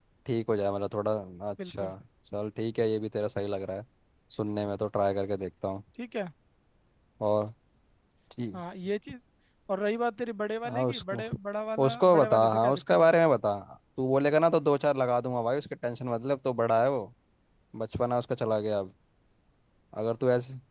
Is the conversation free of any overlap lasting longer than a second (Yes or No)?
No